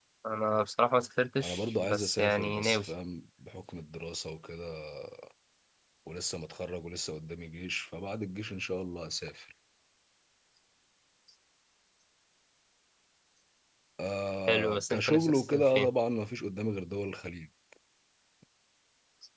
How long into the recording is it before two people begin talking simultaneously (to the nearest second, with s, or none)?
1 s